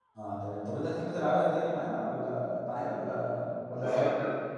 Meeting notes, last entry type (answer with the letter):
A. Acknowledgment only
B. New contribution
B